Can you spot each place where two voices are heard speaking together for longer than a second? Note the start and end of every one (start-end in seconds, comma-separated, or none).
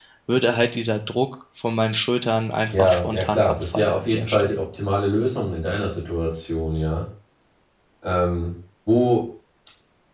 2.7-4.6